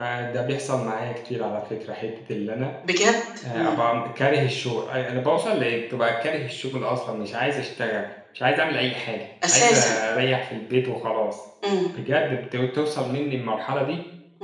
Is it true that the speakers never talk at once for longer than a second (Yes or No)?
Yes